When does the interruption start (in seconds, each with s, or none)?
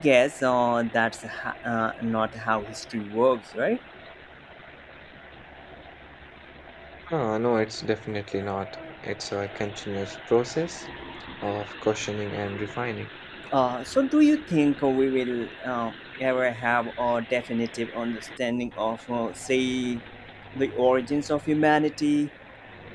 none